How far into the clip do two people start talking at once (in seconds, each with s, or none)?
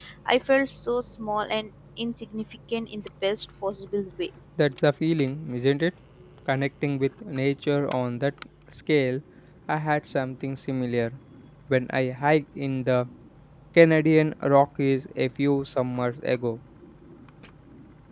none